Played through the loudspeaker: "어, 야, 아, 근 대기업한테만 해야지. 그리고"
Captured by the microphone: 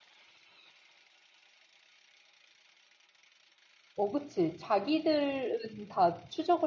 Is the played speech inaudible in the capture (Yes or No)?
Yes